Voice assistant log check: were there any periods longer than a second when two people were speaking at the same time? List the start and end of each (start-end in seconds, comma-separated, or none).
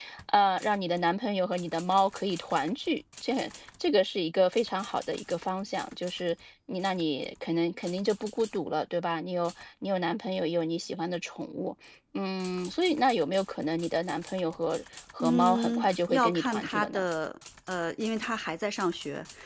15.2-17.1